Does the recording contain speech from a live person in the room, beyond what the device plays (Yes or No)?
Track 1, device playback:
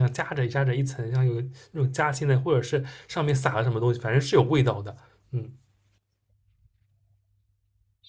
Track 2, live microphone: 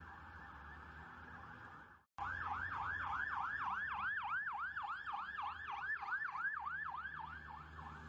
No